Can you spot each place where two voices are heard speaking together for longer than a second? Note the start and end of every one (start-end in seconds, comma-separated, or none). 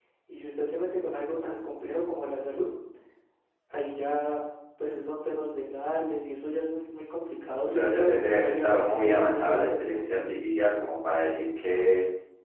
7.7-9.9